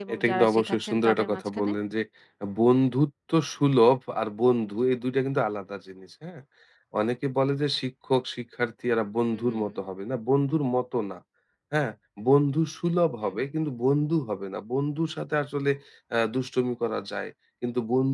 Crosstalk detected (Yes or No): Yes